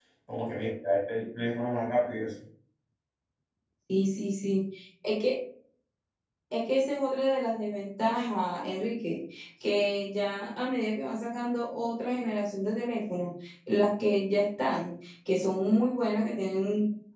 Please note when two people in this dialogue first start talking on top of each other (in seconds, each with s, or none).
none